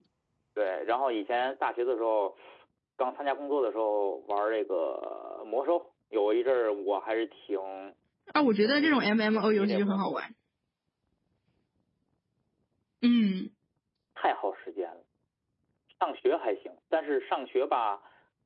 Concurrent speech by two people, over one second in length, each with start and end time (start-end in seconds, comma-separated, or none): 8.6-10.2